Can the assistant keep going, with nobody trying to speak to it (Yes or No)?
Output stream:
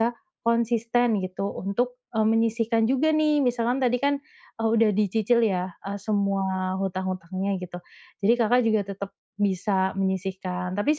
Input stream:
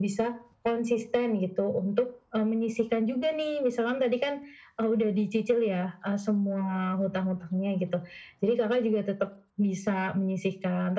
Yes